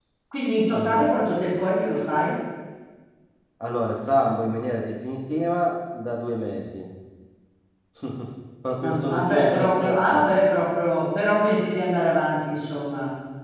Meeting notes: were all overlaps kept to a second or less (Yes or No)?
No